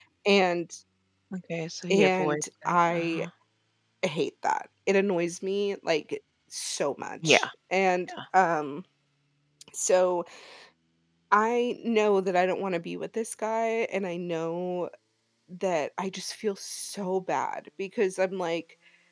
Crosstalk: present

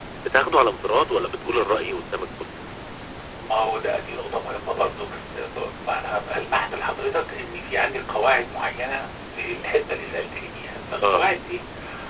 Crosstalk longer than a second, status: none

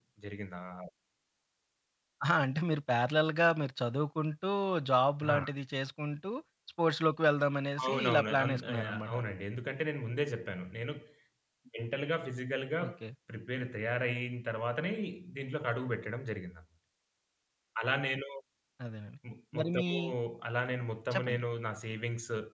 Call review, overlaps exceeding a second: present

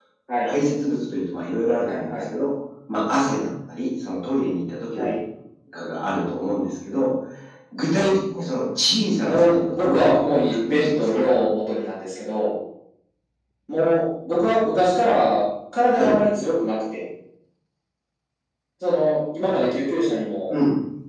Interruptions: present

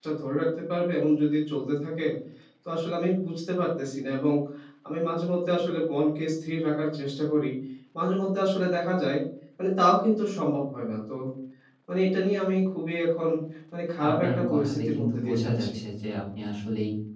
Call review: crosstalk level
present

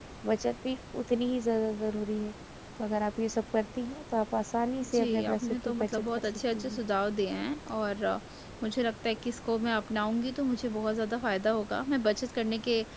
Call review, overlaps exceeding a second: present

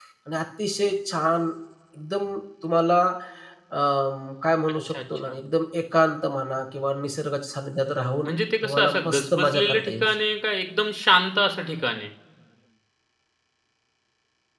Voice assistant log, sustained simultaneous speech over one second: present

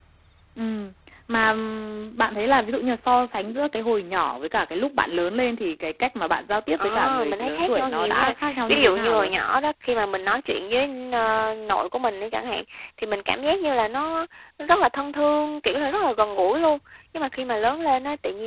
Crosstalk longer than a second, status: present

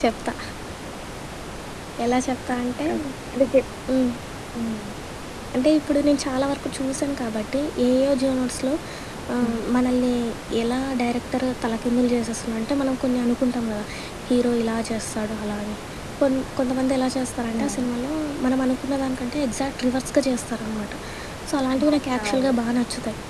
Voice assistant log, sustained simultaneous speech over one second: none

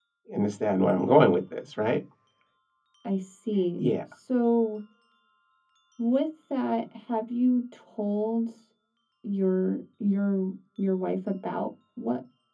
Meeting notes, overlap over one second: none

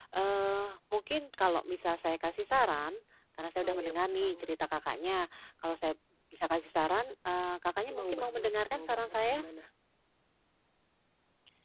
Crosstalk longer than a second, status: present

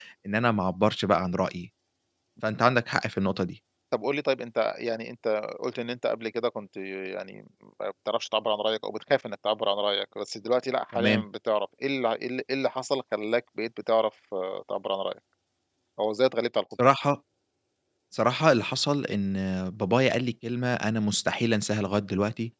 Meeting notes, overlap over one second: none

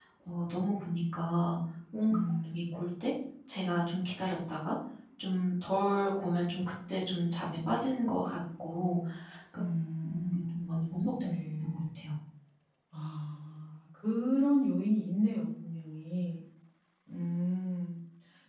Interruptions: present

